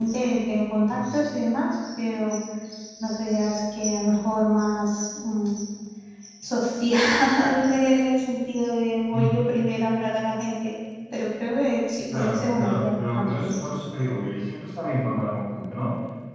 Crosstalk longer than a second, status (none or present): present